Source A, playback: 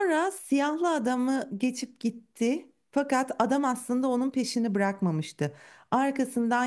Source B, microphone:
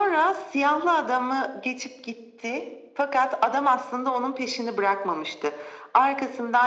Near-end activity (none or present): none